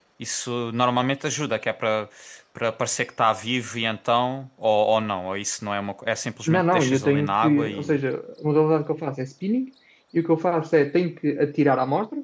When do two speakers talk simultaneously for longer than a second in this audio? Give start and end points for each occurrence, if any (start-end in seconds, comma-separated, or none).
6.5-8.0